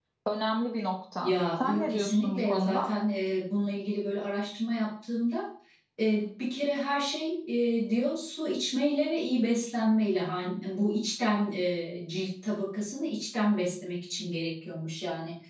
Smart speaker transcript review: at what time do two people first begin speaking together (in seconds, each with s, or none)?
1.2 s